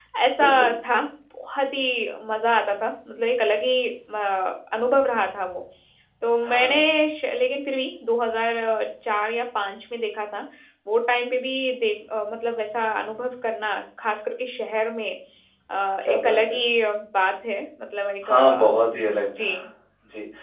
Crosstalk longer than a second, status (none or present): present